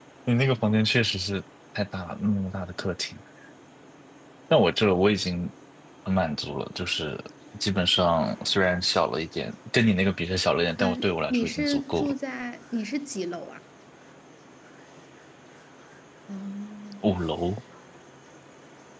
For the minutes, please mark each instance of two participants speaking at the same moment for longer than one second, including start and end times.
10.8-12.1

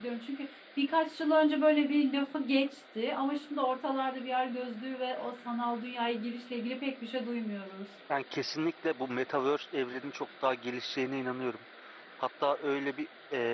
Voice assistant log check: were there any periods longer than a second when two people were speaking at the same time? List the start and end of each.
none

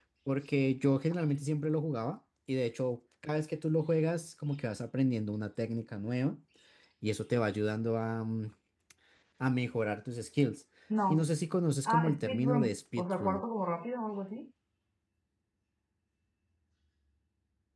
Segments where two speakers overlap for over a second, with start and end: 11.9-13.4

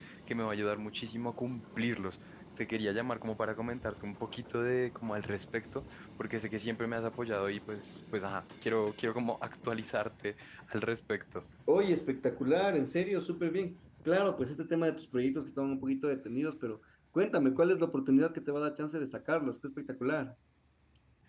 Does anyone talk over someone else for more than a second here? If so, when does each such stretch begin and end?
none

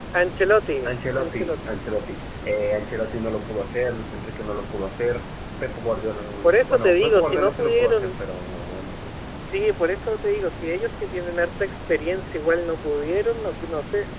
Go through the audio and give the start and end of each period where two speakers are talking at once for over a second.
6.4-8.1

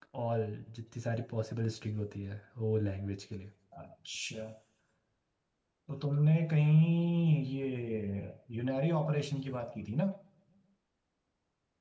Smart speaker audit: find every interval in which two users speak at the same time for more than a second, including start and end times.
none

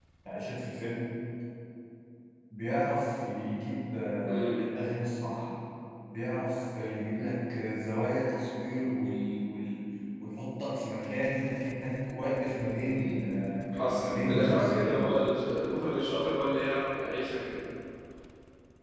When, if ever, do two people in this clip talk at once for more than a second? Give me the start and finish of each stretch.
13.7-15.1

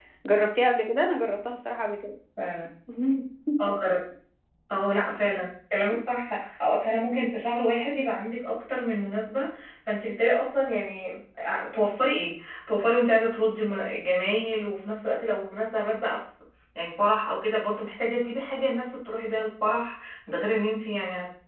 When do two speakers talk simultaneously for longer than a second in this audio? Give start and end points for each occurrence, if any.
none

